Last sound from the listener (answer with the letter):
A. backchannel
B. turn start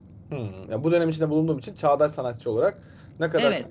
B